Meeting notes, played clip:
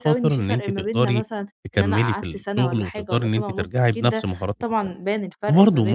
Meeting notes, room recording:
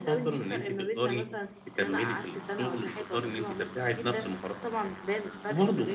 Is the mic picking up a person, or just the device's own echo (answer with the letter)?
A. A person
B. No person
B